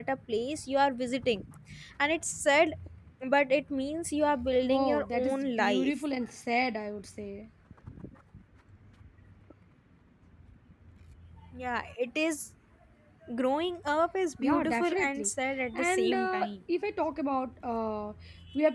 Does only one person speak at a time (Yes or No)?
No